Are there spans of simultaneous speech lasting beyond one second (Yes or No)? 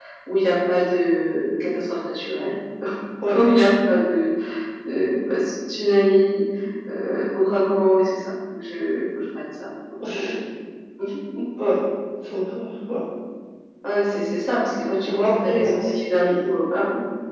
Yes